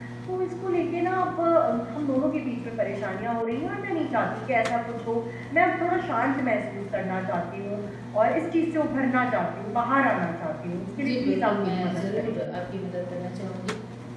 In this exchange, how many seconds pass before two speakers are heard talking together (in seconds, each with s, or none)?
11.0 s